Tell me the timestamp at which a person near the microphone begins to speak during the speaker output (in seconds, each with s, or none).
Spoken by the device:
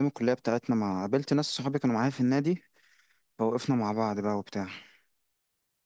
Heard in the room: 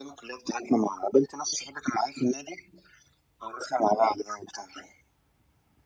none